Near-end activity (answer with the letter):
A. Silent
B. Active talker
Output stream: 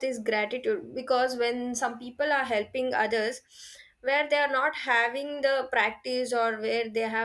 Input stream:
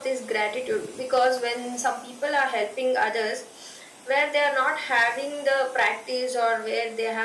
A